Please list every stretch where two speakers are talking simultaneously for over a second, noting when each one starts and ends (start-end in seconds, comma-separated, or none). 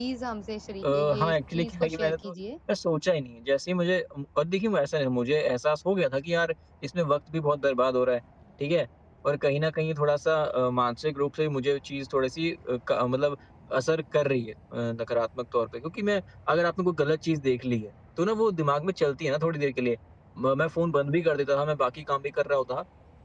0.9-2.3